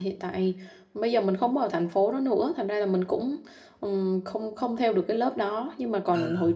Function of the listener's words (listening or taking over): listening